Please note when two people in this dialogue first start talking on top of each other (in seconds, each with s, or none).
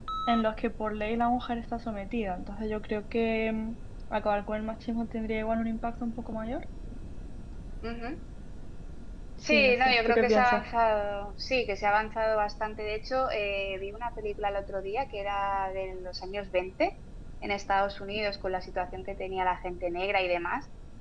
9.4 s